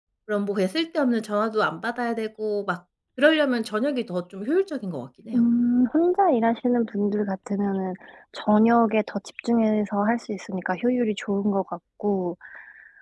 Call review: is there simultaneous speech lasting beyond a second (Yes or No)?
No